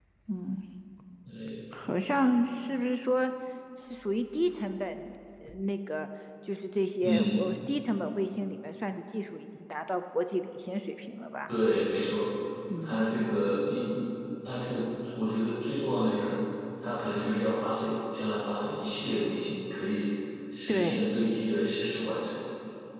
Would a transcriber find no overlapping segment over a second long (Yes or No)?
Yes